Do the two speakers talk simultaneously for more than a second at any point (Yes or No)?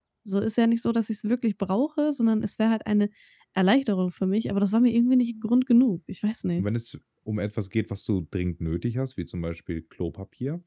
No